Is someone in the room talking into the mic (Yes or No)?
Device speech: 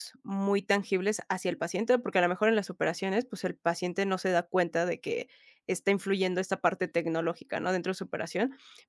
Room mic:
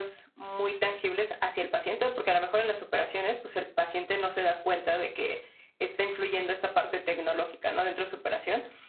No